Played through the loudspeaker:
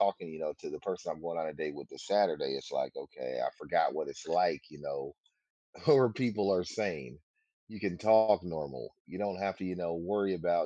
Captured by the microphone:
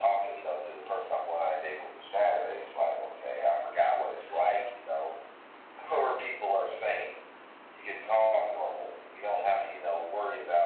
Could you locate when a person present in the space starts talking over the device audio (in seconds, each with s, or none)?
none